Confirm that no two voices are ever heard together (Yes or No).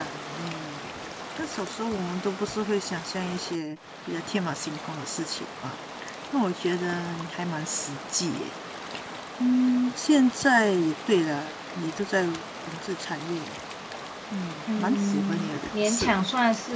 No